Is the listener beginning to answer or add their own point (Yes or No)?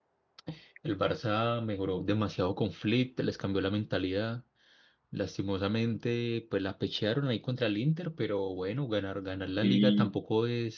No